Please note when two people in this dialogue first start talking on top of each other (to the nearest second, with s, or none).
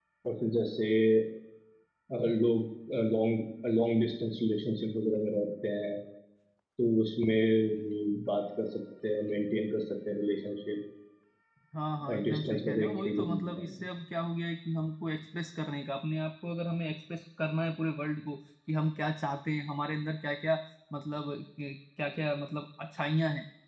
12 s